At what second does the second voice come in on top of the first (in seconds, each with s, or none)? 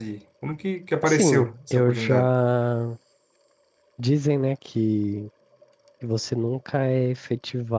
1.1 s